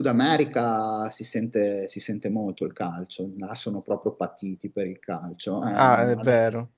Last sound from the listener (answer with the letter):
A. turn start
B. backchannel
A